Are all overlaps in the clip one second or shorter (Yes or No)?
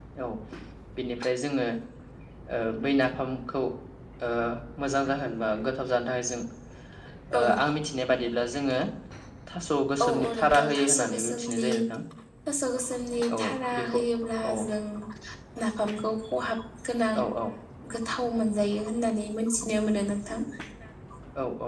No